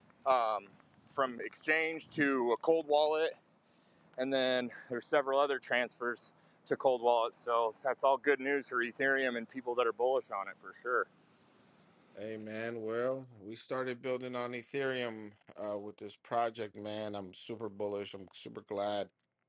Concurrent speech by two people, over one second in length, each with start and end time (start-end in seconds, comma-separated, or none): none